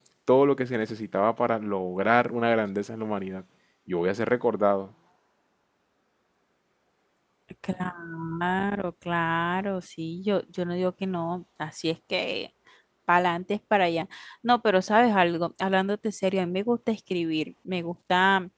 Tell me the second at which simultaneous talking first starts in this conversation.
none

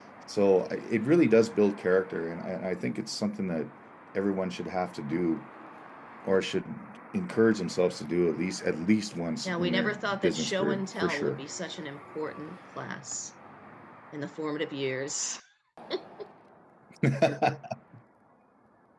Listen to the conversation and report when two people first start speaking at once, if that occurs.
9.4 s

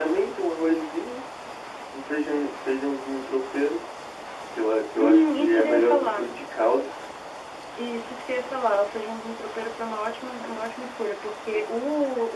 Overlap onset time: 5.0 s

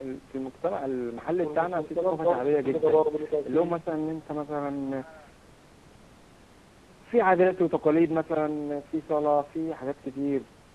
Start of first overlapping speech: 1.4 s

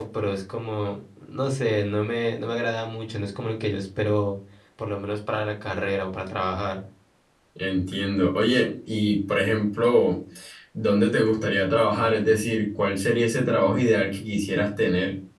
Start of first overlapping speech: none

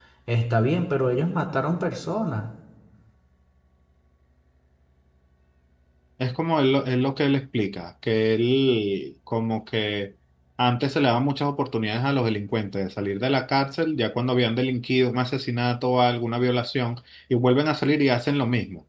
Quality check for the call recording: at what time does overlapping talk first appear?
none

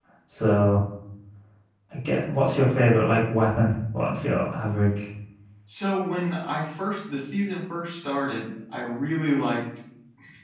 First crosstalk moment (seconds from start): none

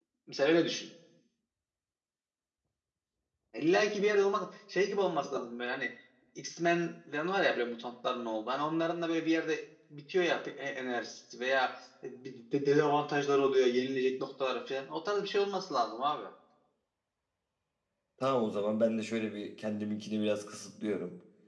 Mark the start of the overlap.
none

